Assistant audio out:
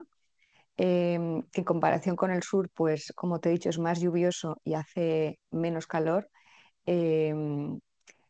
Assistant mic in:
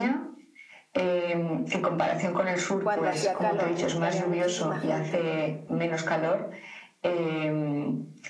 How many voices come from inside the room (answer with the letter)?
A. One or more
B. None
A